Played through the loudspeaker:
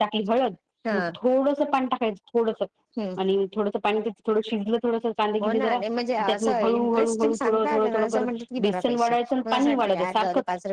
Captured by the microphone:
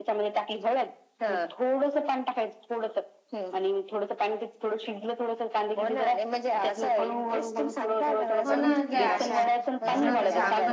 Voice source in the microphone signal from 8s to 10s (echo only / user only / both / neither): both